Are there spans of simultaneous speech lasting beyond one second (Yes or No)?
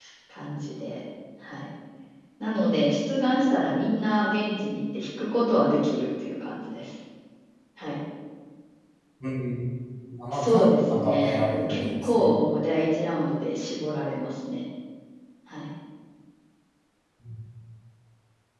Yes